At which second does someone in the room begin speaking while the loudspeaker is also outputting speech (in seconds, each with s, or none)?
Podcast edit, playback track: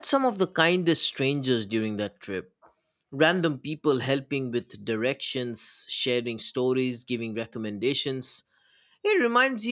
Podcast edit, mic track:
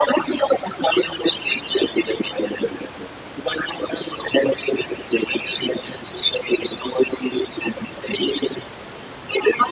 none